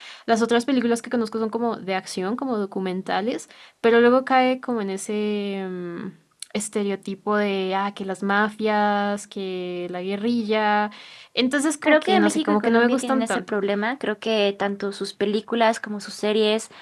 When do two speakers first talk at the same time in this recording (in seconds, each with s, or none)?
11.8 s